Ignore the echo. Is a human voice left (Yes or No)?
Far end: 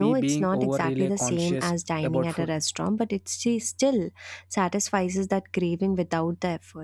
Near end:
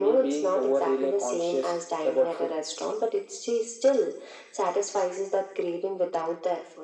No